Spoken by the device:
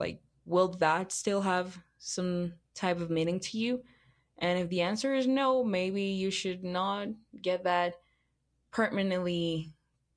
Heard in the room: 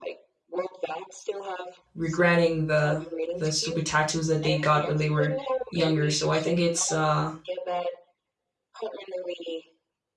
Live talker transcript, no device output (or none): regretting the the stupid tattoos that they got when they were younger. So I think it's uh,